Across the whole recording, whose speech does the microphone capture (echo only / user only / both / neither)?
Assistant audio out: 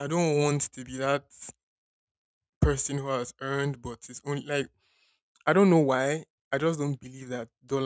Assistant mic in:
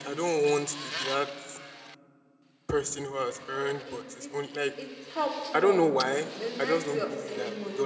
both